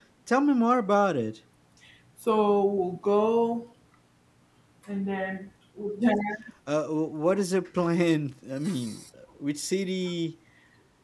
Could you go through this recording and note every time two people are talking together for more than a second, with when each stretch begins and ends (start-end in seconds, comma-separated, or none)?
none